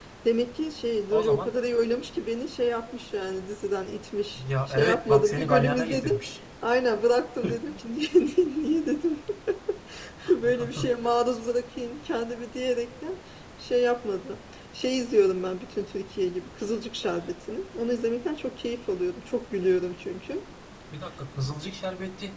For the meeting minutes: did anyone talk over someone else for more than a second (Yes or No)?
Yes